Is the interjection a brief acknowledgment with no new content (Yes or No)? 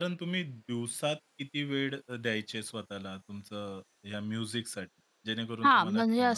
No